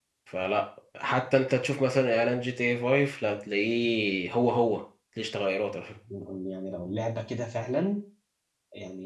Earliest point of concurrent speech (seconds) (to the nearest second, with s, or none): none